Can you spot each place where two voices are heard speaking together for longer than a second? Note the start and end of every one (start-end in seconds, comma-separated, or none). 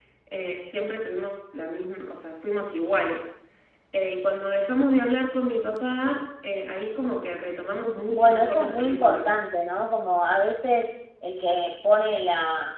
8.1-9.3